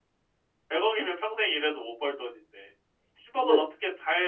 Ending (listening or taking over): listening